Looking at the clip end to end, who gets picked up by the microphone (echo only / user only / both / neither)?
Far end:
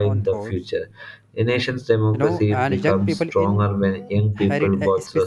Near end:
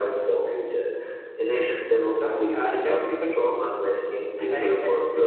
echo only